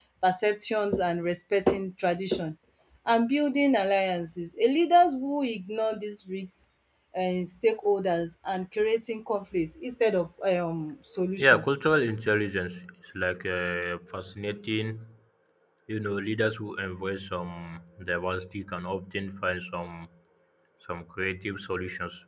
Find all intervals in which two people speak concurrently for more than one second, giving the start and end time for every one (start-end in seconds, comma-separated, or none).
none